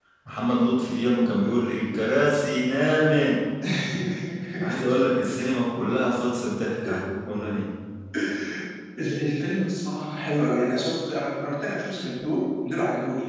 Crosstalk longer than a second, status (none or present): none